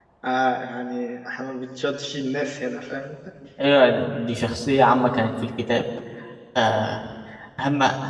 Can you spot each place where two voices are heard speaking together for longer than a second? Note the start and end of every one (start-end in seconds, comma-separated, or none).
none